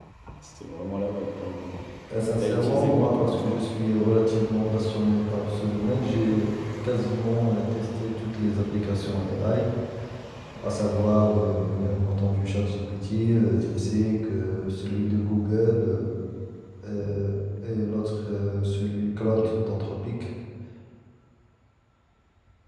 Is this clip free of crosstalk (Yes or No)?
No